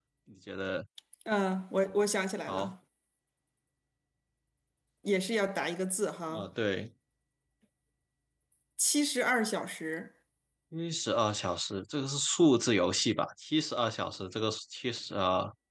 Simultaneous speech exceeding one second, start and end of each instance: none

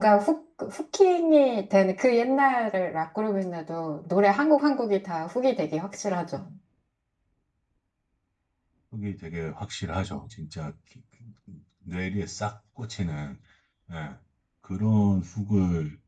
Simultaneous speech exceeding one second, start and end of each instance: none

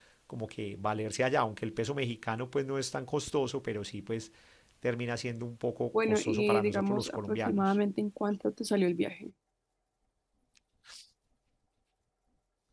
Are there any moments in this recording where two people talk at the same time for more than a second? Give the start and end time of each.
6.0-7.7

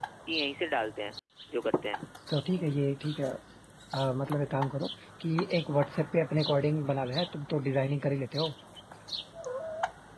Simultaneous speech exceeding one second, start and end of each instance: none

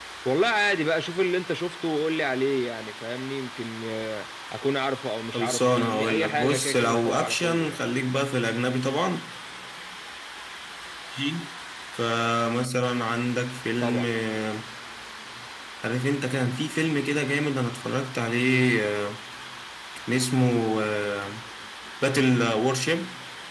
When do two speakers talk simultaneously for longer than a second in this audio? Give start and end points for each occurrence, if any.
5.3-7.8

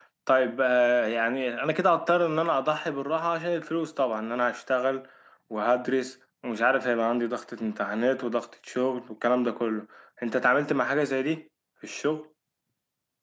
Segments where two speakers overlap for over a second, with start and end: none

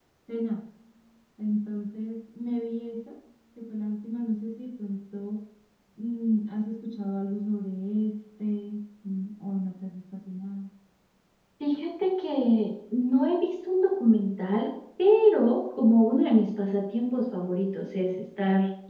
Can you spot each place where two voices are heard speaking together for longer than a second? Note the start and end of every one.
none

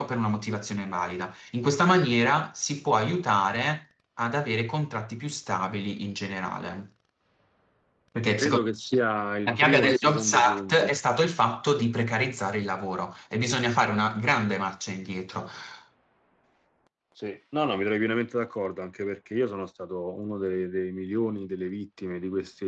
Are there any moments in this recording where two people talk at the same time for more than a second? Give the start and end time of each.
9.5-11.0

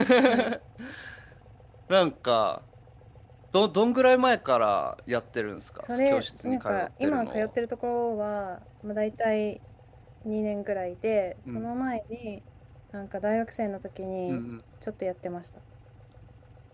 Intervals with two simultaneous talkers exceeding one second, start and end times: 5.8-7.5

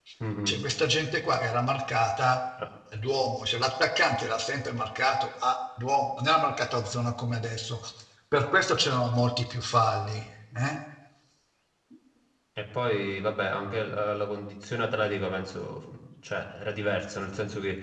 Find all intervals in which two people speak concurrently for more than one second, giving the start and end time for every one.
none

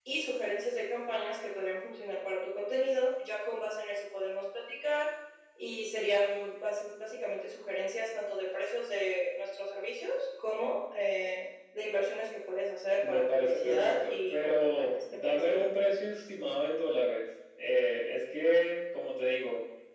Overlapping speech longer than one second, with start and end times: 13.1-15.7

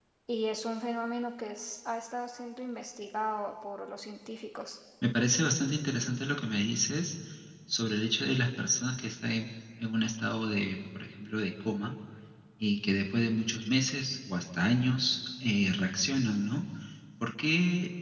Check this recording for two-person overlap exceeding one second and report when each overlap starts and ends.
none

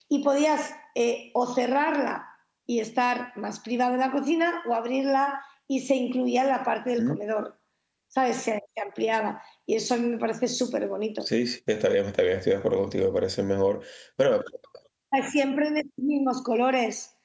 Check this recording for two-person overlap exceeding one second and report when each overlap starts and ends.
none

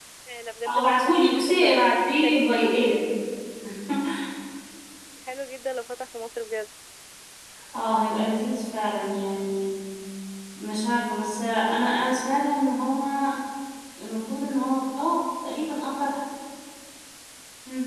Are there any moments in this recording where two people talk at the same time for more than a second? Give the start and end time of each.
0.7-2.5

